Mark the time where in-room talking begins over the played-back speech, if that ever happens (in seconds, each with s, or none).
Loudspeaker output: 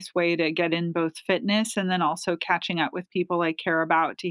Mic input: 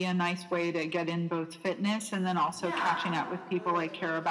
2.6 s